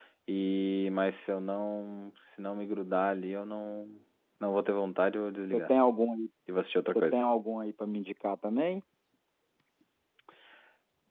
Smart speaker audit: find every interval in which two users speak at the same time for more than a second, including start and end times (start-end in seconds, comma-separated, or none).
none